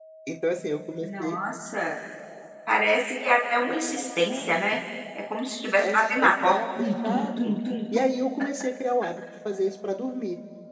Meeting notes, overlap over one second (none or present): present